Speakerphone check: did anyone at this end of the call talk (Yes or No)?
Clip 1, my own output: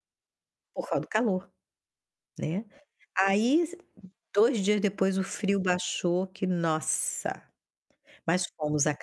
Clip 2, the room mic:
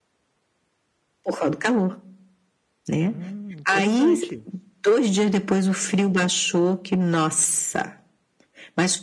Yes